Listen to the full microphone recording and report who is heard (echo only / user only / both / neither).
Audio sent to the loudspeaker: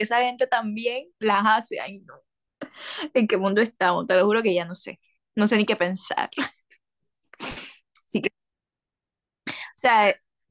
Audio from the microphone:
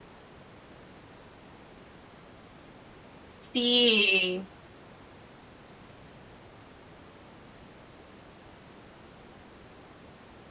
user only